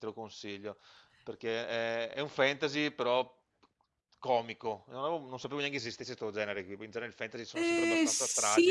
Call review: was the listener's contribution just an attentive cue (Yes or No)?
No